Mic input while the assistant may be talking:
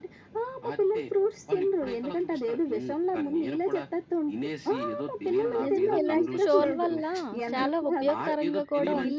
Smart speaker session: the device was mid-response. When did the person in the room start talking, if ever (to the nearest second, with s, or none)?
6 s